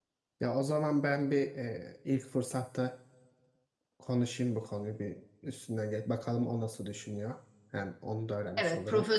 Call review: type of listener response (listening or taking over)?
taking over